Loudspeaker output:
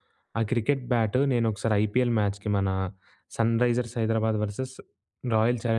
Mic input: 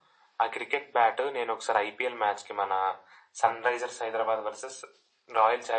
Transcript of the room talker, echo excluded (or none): none